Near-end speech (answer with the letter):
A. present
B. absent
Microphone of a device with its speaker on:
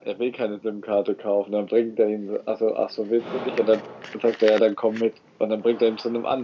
B